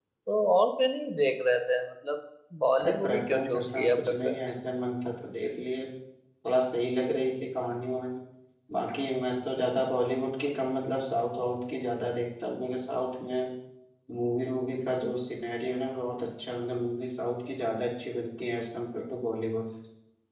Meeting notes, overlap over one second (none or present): present